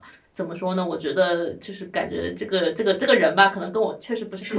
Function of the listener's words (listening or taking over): taking over